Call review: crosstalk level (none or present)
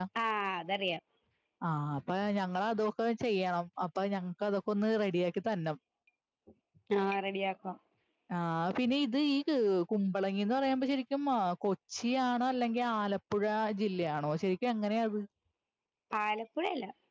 none